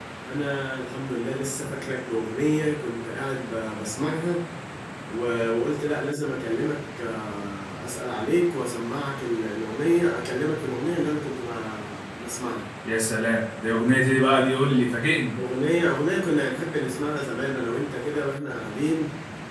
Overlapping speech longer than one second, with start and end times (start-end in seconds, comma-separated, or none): none